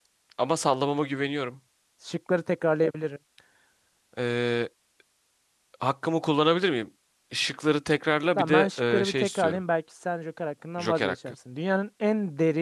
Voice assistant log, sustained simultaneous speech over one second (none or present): present